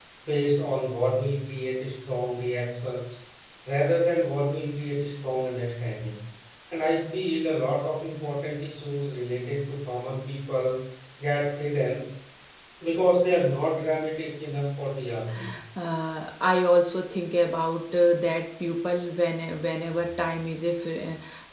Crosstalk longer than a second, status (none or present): none